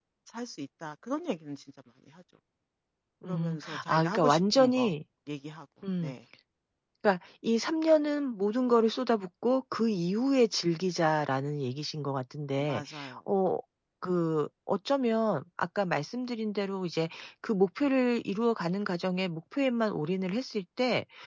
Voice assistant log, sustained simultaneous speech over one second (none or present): present